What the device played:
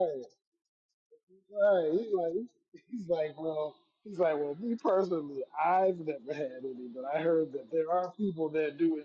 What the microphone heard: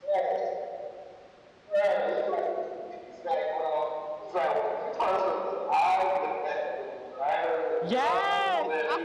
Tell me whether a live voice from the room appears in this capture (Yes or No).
Yes